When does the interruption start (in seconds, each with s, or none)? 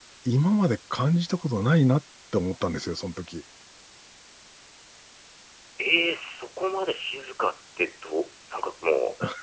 none